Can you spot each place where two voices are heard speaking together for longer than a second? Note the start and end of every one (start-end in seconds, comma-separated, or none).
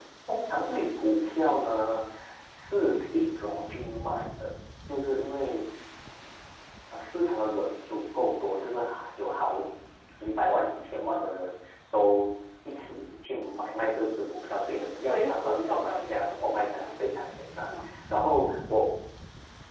14.8-16.9